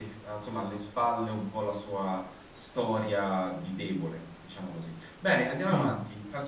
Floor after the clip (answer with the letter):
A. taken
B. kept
B